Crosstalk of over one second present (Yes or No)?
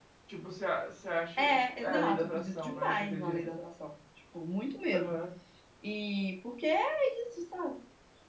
Yes